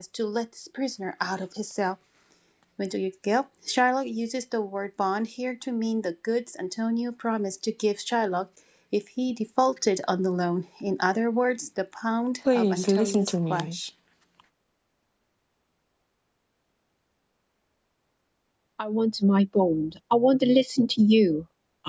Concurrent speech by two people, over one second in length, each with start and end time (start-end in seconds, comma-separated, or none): 12.5-13.8